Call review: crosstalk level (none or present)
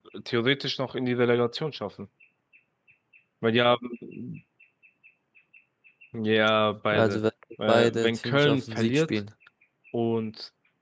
present